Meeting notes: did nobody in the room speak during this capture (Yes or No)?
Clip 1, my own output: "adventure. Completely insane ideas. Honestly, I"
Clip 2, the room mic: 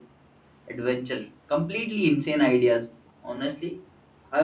Yes